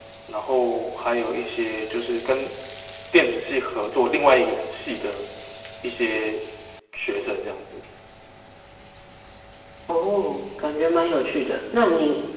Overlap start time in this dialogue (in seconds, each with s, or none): none